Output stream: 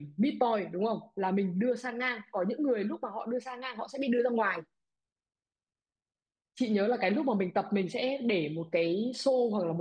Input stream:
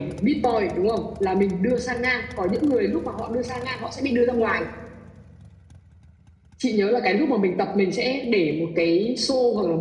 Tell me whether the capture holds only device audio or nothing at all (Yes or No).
Yes